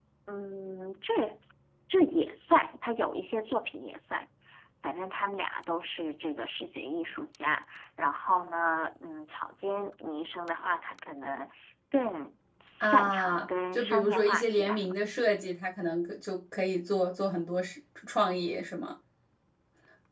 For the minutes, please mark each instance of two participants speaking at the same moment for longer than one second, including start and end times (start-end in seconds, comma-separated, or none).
12.8-14.9